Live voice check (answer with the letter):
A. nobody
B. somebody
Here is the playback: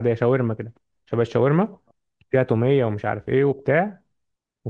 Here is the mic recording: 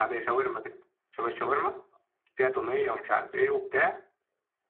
A